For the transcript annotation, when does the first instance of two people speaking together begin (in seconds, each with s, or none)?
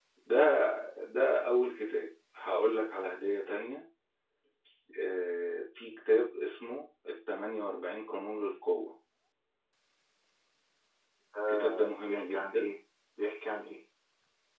11.5 s